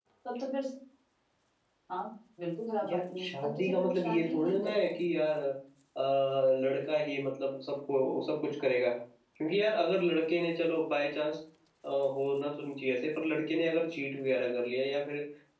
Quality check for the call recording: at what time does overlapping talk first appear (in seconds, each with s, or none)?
2.8 s